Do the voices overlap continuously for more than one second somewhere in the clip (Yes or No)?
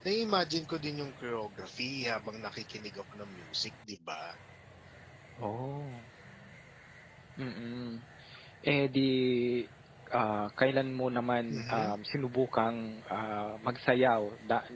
No